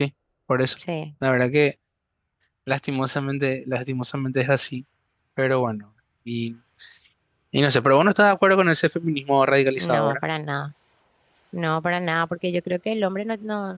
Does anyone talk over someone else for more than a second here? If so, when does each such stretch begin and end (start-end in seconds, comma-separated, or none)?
none